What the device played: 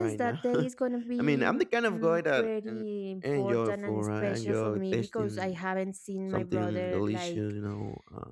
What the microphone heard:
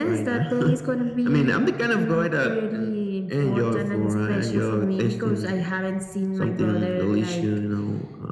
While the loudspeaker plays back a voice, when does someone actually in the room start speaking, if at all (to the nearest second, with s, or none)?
none